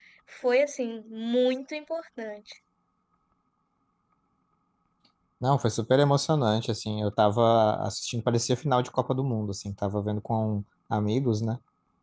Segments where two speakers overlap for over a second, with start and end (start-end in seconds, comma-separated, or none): none